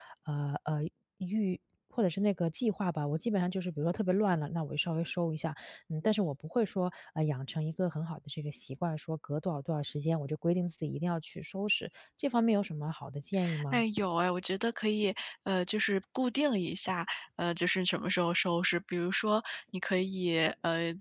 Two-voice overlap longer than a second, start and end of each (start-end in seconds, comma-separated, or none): none